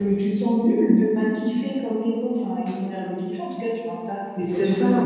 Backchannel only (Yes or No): No